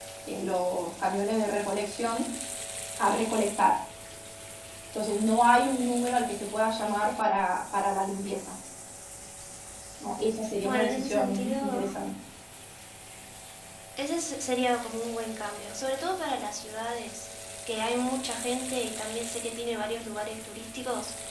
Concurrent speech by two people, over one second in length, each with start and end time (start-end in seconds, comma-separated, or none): 10.6-12.0